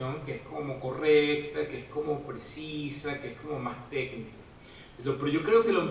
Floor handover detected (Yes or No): No